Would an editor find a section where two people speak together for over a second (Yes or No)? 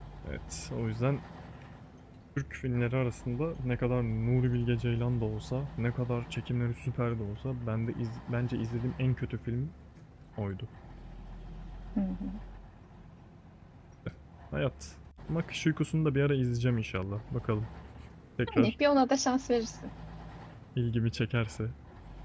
No